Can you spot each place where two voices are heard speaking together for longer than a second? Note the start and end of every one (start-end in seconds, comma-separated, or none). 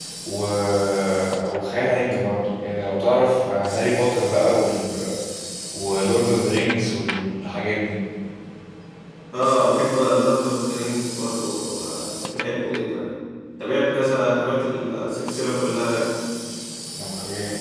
none